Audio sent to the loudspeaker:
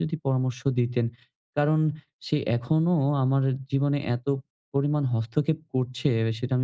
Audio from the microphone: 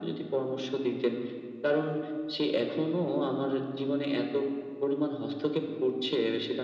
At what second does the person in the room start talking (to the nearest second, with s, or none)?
none